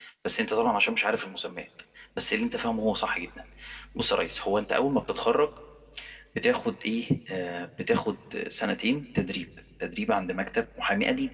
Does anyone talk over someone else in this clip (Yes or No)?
No